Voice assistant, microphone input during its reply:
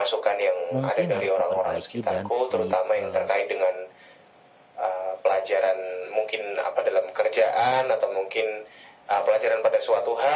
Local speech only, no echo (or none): mungkin harus diperbaiki dan di eh,